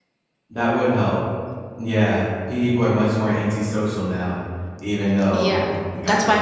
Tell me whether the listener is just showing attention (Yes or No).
No